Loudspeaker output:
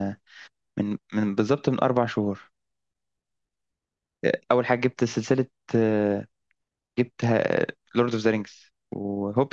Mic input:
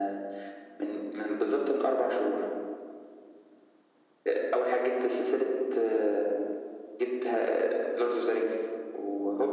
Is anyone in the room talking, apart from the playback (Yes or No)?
No